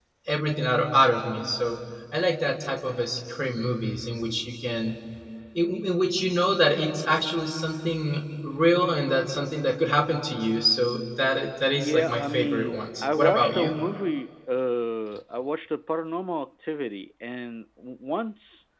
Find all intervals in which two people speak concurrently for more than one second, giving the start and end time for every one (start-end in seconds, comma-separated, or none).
11.8-13.8